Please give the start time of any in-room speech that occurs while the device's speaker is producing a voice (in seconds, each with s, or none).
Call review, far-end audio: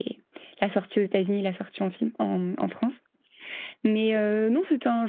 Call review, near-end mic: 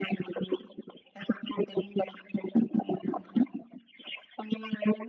none